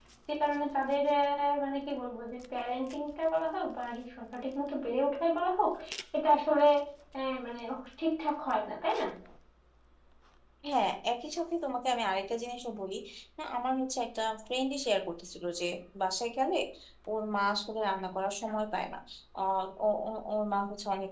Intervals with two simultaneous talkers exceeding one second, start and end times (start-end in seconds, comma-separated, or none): none